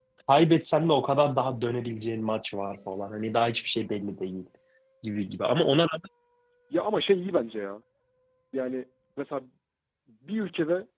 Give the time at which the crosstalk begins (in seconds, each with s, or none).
none